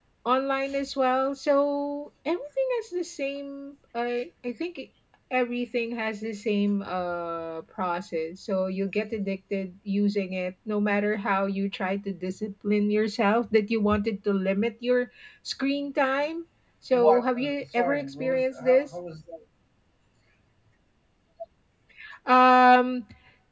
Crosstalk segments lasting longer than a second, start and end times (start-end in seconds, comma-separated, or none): 16.9-18.9